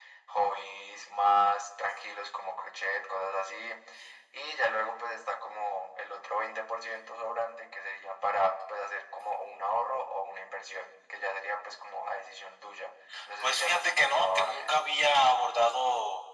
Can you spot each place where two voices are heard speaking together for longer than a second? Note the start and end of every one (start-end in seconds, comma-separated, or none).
13.4-14.8